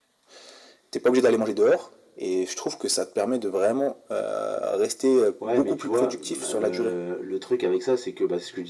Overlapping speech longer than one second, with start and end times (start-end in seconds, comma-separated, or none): 5.4-6.9